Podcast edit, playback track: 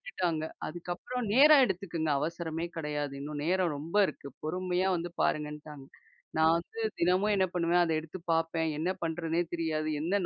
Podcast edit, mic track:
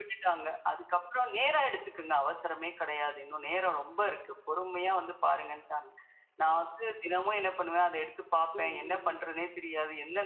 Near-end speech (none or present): present